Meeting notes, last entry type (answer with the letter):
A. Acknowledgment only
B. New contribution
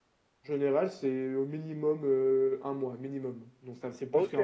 B